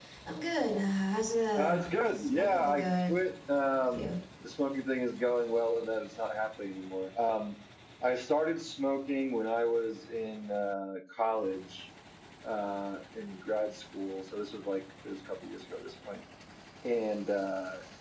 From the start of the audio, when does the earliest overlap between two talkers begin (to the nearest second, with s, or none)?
2 s